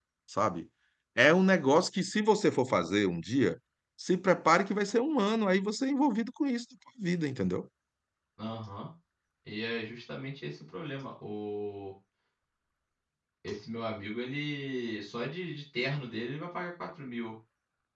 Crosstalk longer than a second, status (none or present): none